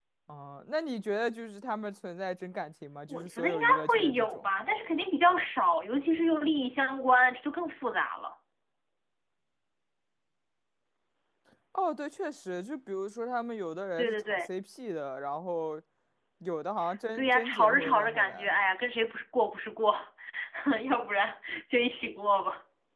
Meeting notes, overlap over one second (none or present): present